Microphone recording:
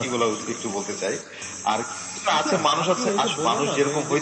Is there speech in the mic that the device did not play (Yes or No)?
No